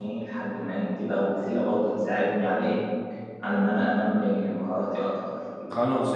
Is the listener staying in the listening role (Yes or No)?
No